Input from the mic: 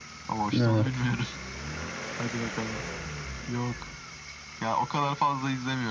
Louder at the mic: user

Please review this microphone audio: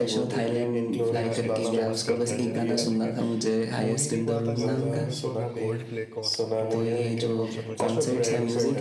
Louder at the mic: echo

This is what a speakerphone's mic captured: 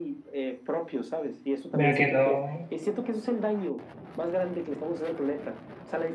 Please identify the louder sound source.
user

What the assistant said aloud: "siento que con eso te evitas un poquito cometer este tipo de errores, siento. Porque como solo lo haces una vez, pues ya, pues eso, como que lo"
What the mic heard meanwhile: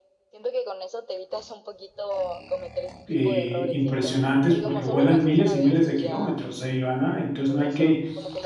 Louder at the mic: user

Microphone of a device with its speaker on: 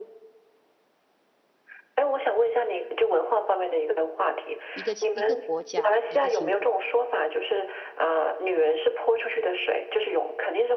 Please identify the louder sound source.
echo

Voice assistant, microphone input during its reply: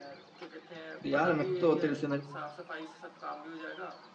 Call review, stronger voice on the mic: user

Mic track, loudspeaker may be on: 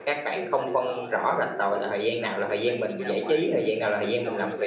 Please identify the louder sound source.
user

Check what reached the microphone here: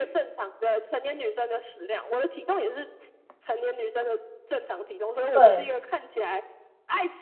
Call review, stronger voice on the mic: user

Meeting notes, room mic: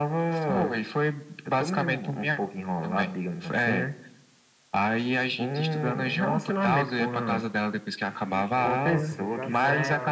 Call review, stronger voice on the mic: echo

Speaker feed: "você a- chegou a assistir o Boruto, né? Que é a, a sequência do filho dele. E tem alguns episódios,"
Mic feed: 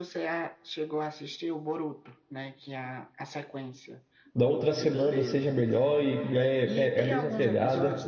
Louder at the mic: user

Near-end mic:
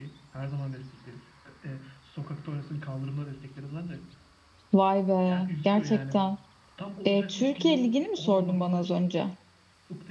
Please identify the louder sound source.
user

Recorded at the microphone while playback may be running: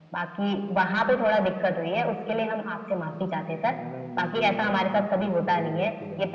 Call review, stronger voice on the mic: echo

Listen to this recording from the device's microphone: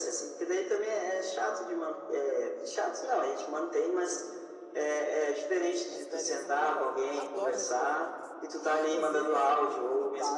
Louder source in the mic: echo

